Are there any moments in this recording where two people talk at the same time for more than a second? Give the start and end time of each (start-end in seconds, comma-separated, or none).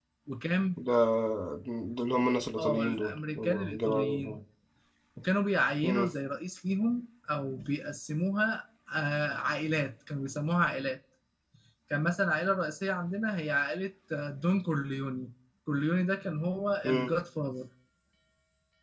2.6-4.4